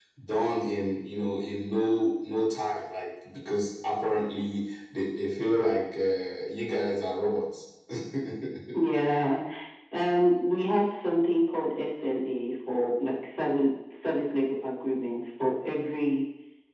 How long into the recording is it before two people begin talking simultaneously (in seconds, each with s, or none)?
none